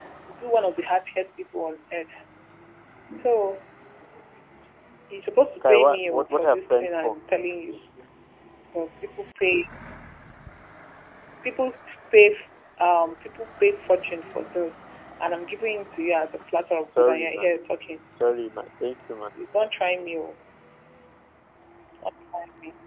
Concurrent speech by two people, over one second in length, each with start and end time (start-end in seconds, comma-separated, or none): 5.6-7.1